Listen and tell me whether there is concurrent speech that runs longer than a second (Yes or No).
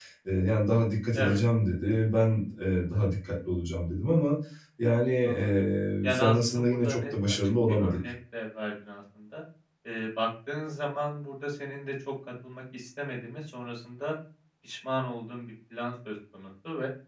Yes